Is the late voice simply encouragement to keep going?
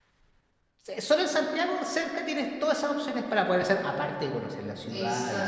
No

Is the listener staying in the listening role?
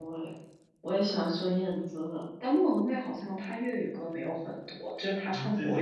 No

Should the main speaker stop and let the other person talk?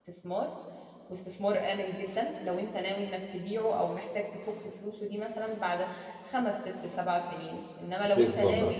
No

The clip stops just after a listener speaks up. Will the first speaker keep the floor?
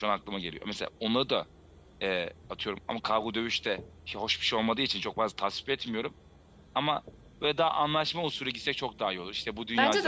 No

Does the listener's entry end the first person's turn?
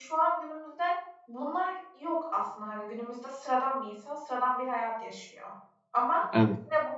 No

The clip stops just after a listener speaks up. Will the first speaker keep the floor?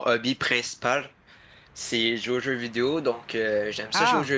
Yes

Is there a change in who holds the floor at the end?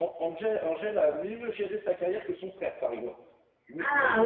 No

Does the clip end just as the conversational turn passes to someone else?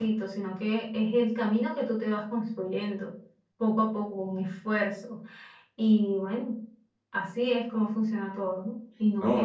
Yes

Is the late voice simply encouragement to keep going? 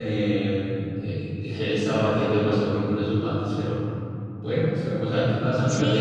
No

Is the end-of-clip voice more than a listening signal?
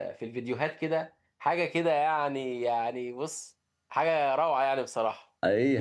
Yes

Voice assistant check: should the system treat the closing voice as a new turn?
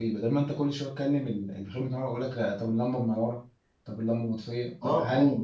Yes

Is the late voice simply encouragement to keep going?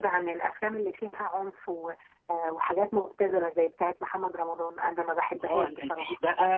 No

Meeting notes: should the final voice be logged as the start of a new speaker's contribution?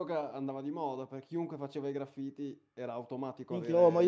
Yes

